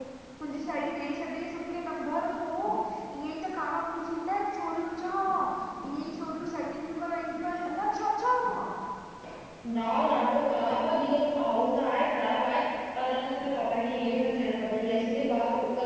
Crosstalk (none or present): none